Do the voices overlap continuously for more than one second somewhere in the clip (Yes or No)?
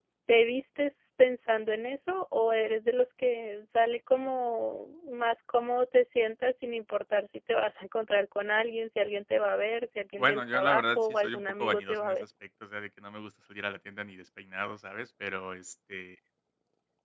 Yes